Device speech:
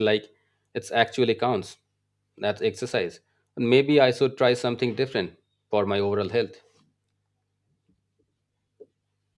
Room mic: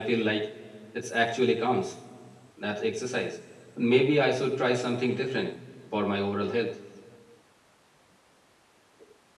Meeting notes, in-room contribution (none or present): none